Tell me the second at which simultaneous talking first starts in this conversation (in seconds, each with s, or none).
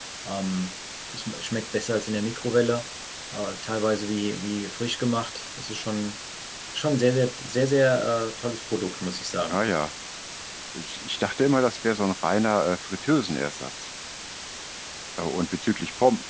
none